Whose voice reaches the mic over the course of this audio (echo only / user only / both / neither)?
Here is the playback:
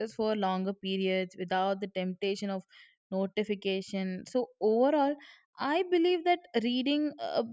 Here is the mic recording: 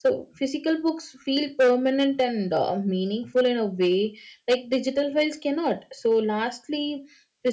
user only